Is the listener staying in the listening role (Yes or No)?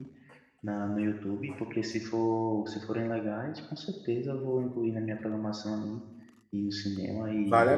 No